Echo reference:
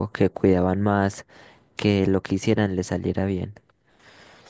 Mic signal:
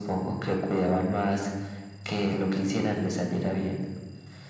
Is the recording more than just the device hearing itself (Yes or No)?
No